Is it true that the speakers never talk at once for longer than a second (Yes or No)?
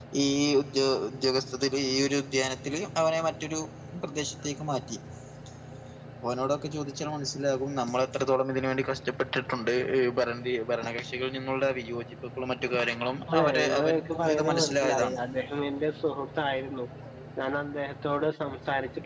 No